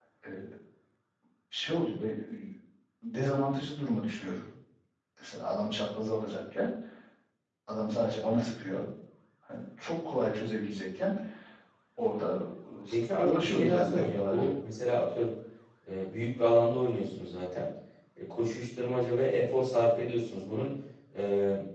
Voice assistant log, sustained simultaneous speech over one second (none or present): present